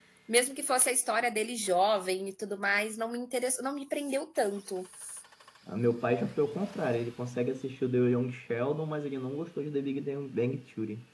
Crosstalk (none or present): none